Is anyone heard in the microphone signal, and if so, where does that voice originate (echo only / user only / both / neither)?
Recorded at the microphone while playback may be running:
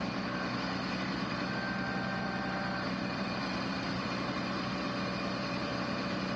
neither